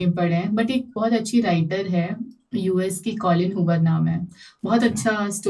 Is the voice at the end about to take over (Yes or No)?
No